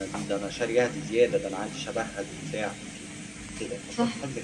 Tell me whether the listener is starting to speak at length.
Yes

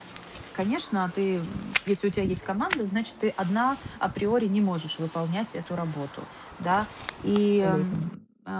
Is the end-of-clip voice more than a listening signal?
No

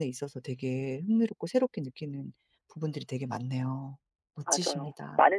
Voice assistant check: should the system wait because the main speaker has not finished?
No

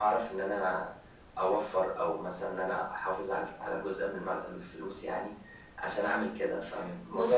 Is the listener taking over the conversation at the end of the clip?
Yes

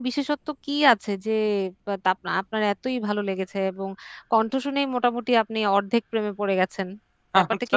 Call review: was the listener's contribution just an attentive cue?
No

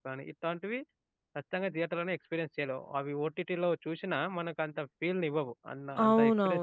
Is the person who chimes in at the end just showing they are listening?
No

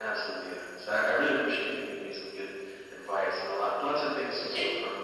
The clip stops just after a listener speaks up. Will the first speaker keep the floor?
Yes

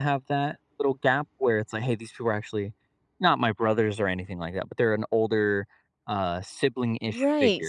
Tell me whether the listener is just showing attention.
No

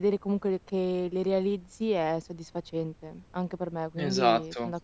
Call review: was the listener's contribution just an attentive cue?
No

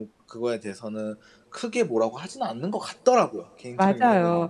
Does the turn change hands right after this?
Yes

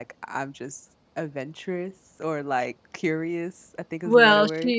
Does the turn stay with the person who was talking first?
No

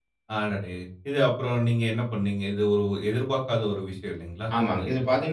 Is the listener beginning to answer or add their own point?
Yes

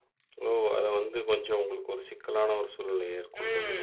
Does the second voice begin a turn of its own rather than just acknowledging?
Yes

